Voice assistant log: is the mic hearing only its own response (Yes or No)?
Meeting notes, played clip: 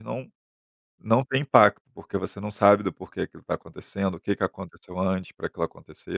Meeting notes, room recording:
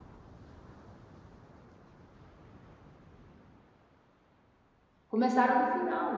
No